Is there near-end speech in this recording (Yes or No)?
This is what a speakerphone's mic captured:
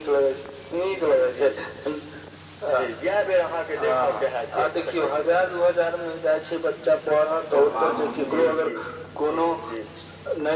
Yes